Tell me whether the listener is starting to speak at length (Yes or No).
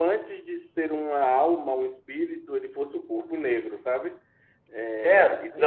Yes